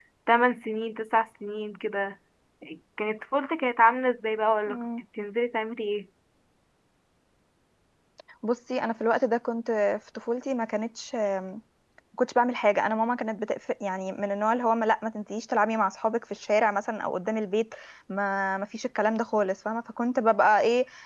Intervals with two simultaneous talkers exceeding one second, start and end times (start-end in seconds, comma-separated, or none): none